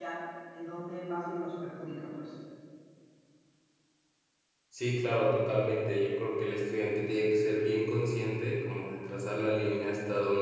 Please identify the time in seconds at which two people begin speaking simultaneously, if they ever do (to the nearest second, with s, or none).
none